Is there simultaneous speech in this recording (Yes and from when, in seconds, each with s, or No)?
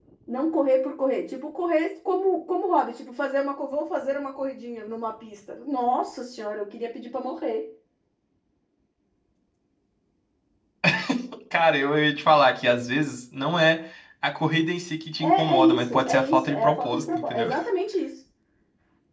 Yes, from 15.2 s